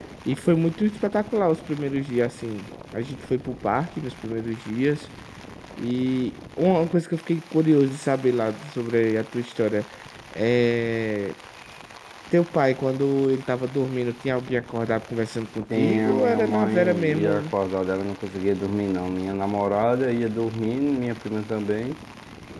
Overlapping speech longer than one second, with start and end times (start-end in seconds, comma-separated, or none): 15.7-17.5